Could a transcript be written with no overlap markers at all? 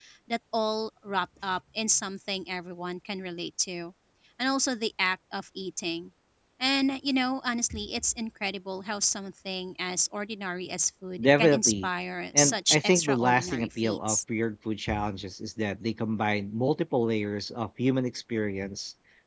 No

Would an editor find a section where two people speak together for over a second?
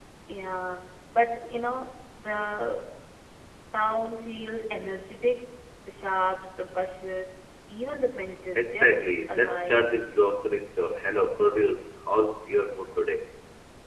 Yes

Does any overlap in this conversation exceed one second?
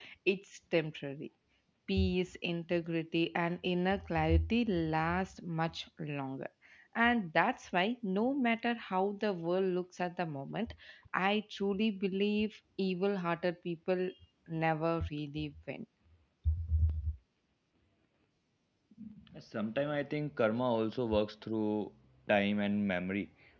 No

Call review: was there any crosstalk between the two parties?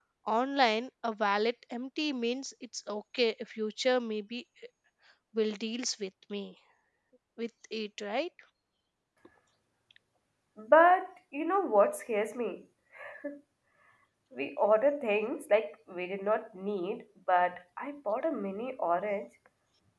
No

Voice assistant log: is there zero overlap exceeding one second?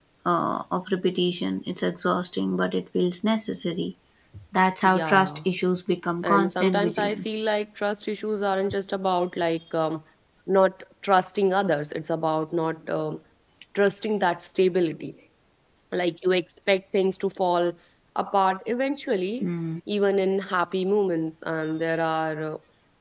No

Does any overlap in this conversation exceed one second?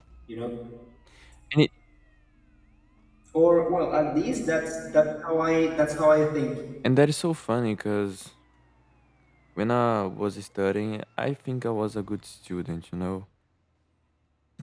No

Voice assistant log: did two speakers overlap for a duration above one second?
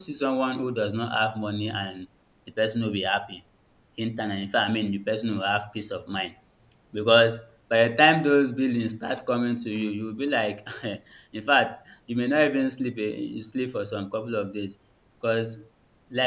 No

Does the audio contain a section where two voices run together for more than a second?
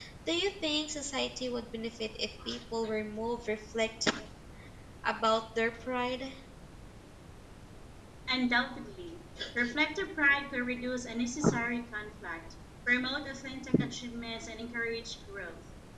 No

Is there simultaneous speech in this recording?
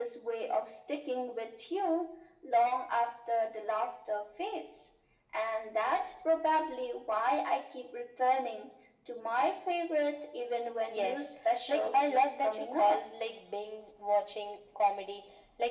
Yes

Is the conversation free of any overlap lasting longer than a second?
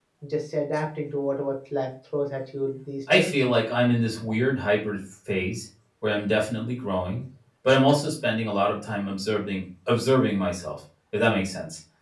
Yes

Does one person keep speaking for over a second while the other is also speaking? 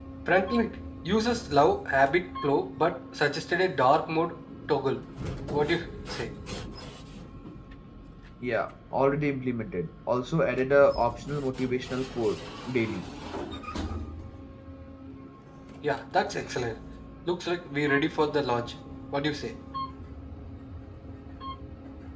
No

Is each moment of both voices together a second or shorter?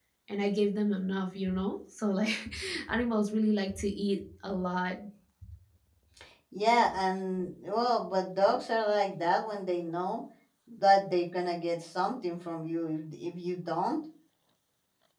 Yes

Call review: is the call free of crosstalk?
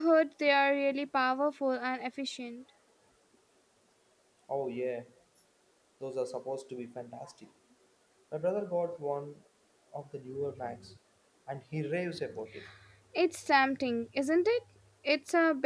Yes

